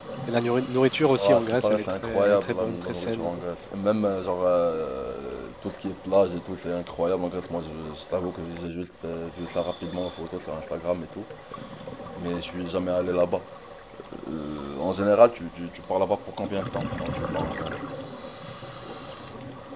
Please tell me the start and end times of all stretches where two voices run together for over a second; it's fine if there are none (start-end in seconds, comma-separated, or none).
1.2-3.3